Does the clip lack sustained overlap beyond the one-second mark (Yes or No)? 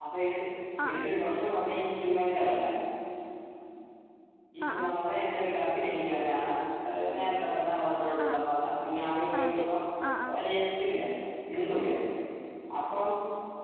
Yes